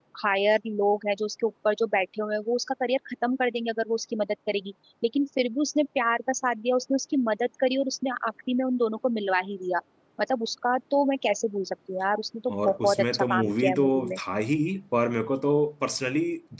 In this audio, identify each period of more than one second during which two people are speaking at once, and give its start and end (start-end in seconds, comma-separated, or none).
12.7-14.2